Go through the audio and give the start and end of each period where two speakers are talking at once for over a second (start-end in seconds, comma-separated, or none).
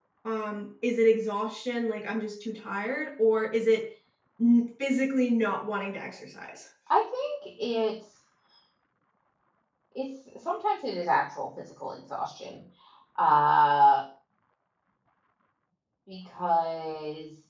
none